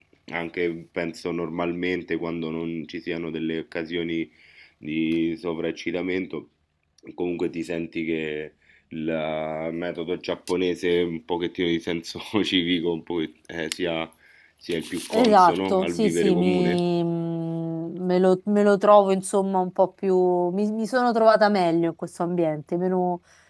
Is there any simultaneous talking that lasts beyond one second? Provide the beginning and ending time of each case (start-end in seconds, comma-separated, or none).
15.1-16.8